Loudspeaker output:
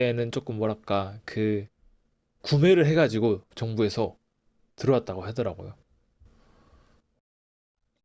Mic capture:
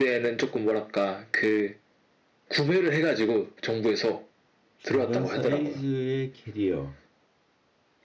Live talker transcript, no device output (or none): 중간 사이즈의 캐리어,